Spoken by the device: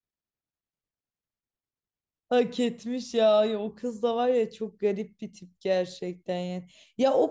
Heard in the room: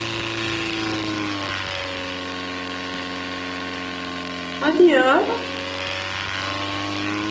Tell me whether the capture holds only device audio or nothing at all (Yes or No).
No